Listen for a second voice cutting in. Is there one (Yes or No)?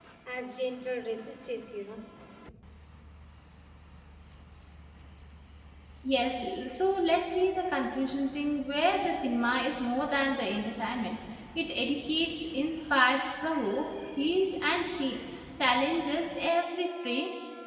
No